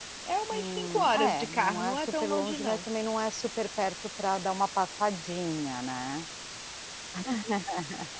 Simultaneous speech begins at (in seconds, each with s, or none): 0.5 s